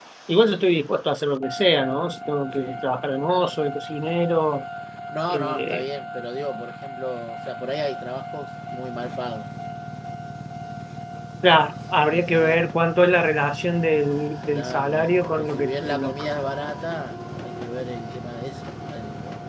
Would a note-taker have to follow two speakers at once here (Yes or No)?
Yes